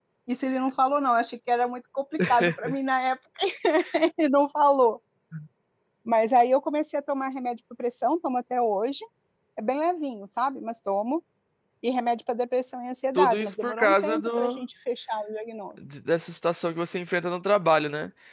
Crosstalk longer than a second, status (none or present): present